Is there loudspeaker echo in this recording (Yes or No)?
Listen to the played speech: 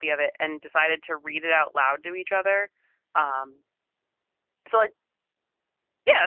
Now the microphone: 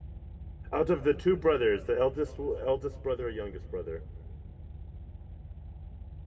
No